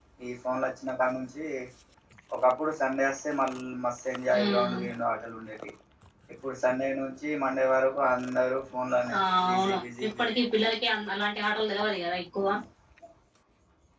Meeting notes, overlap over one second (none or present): present